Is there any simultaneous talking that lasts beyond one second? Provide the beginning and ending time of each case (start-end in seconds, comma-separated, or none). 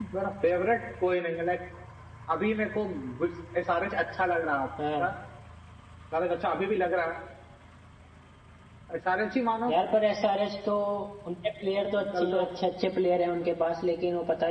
none